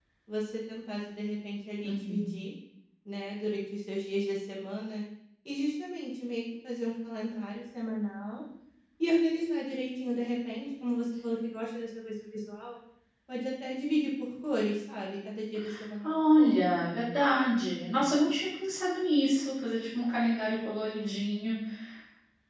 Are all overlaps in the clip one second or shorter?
Yes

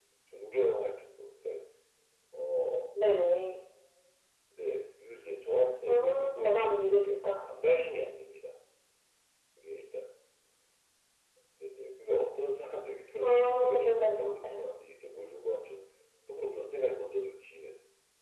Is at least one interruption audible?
Yes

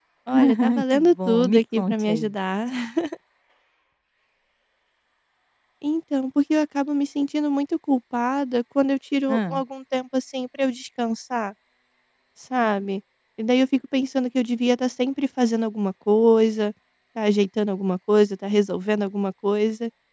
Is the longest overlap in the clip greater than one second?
Yes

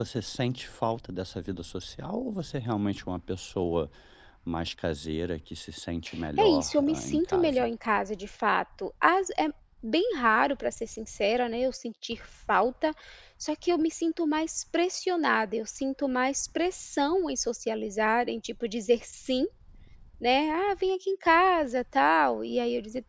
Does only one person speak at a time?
No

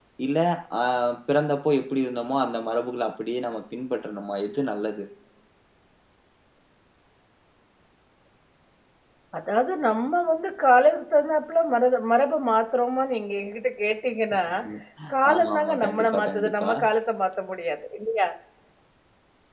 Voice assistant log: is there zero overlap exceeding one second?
No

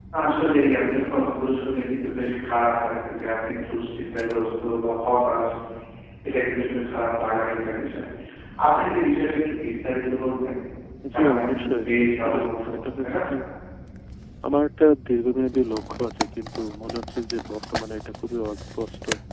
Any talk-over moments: Yes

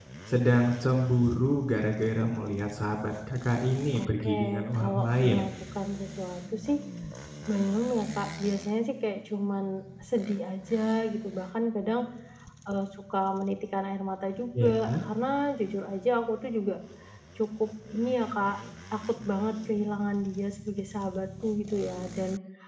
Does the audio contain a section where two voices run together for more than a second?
Yes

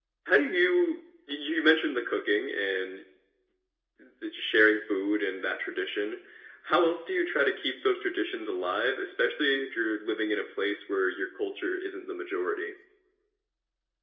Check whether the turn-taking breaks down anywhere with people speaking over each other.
No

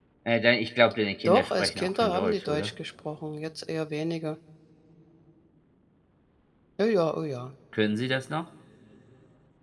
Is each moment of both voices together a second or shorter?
No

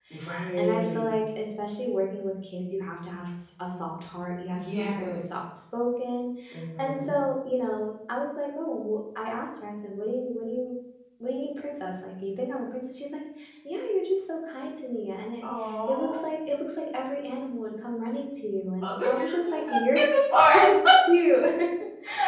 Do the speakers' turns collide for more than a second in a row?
Yes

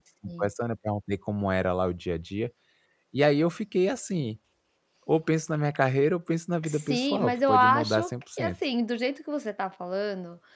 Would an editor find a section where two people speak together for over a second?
Yes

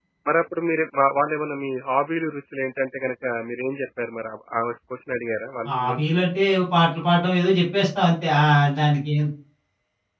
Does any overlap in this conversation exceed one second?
No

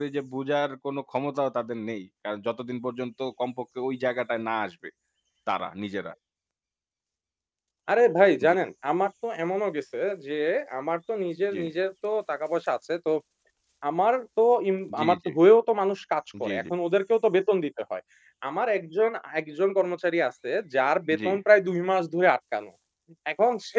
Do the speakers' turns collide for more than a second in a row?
No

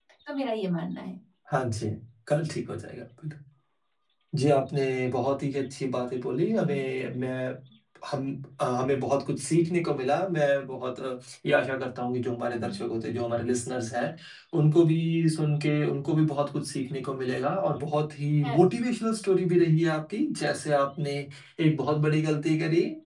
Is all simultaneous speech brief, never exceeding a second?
Yes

